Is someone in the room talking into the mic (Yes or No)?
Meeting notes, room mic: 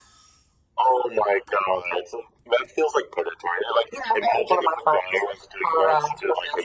No